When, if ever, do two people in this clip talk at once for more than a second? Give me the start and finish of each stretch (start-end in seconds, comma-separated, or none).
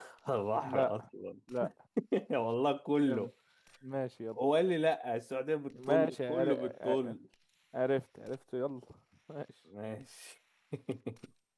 5.9-7.1